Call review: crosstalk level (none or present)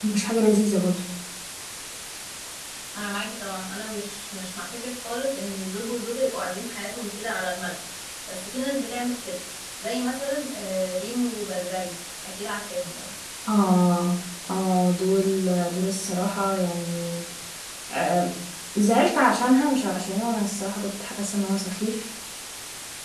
none